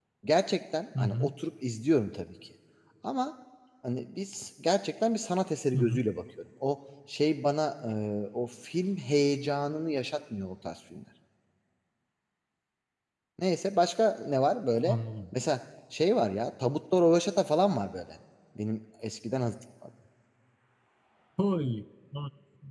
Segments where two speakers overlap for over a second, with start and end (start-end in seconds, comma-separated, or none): none